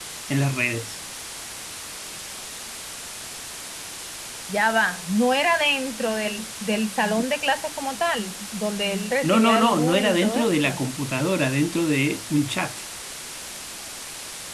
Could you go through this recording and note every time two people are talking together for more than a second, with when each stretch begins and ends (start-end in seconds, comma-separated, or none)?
9.3-10.8